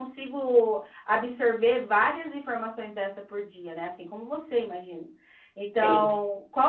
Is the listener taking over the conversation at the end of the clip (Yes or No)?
No